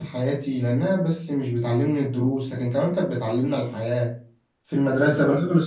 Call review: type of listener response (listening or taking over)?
listening